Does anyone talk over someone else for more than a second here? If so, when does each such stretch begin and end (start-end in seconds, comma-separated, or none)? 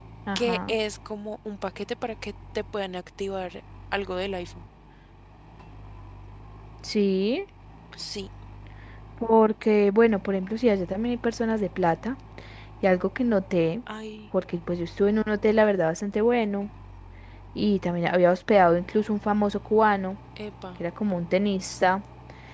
none